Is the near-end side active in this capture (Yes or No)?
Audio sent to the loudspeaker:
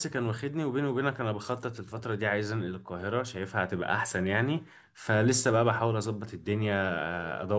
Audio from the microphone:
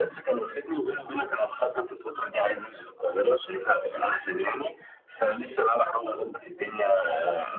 No